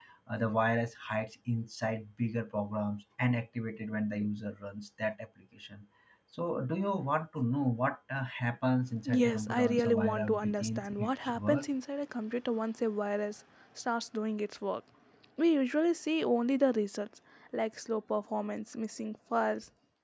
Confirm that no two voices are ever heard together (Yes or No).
No